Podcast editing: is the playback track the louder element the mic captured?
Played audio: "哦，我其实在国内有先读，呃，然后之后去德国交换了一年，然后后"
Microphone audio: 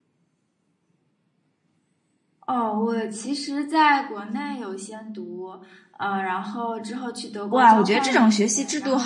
No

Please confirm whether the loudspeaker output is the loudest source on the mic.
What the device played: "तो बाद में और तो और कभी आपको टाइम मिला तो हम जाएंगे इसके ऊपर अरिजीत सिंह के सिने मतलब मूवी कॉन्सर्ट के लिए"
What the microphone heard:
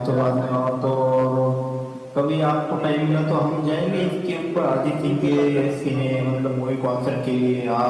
Yes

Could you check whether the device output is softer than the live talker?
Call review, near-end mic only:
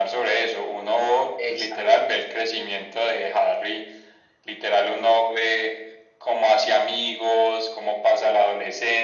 No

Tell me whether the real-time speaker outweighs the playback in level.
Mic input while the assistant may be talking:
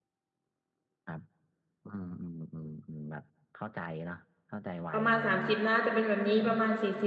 Yes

